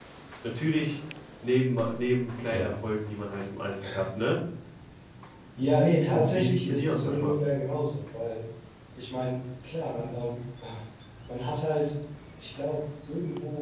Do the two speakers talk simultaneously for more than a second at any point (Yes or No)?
Yes